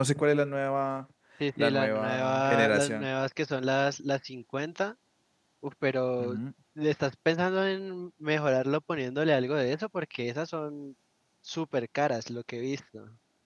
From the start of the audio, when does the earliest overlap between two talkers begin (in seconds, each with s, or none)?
1.6 s